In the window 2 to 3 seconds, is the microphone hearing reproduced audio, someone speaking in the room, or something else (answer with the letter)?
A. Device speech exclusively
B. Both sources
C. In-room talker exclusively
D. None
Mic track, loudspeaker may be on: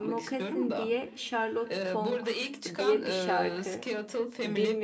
B